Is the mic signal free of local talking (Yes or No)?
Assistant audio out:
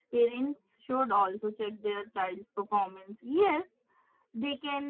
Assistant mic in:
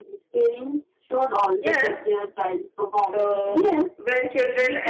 No